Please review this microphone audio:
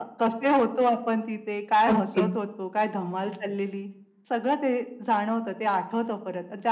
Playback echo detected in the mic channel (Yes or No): Yes